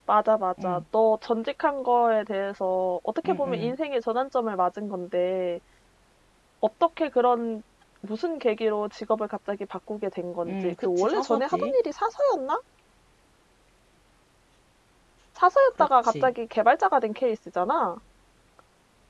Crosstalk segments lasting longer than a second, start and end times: 10.5-11.8

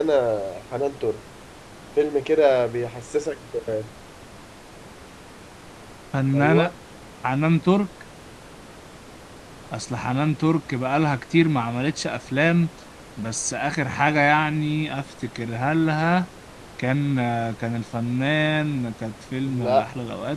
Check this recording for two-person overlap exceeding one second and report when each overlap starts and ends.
none

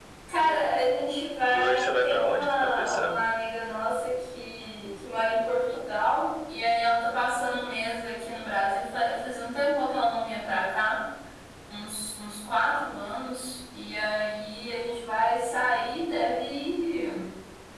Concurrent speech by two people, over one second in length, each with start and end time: 1.5-3.2

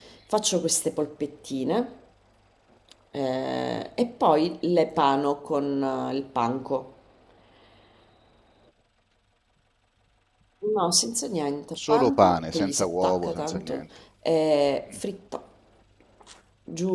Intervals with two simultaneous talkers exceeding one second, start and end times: 11.9-13.8

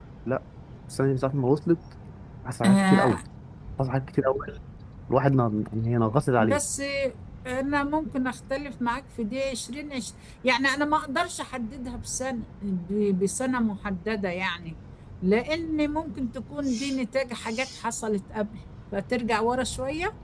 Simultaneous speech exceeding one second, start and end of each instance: none

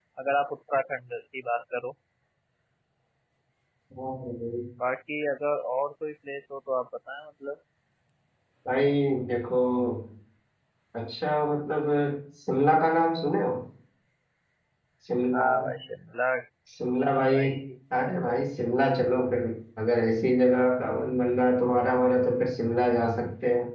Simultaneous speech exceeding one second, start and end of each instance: none

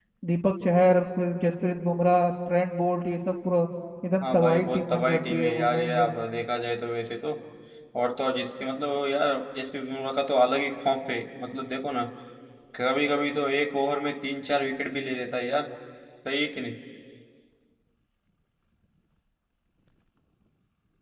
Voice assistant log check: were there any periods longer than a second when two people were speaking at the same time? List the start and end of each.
4.2-6.1

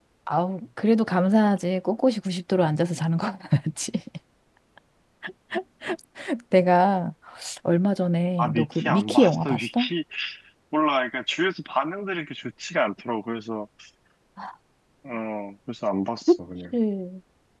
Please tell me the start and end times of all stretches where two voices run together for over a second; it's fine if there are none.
8.4-9.9

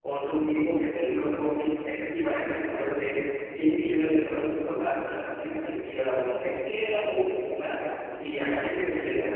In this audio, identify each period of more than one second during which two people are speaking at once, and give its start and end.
none

